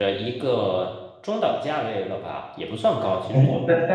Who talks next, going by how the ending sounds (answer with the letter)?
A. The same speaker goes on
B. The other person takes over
B